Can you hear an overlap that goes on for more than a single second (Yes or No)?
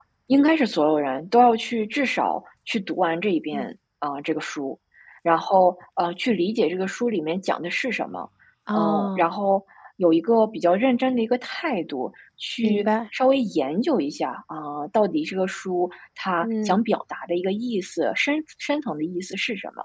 No